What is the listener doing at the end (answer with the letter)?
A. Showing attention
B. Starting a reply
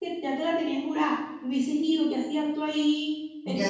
B